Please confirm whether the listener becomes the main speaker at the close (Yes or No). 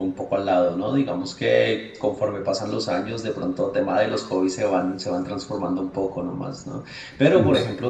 No